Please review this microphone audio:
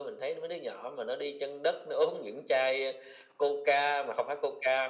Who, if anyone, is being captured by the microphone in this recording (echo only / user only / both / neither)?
echo only